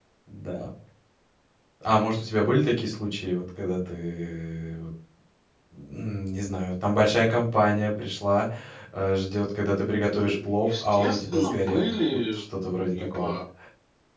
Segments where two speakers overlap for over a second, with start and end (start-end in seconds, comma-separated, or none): 10.2-12.4